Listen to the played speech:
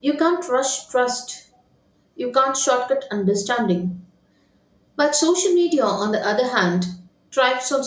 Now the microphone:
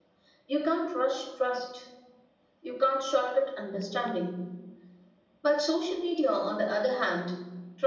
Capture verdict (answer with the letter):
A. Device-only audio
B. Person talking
A